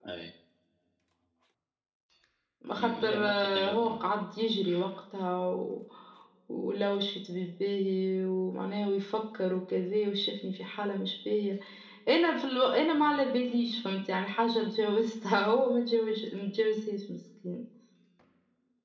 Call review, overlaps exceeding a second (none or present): present